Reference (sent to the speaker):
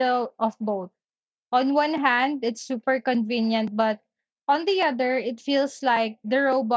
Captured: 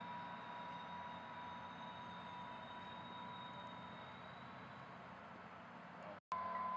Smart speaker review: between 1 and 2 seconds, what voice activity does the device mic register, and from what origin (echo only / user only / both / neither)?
neither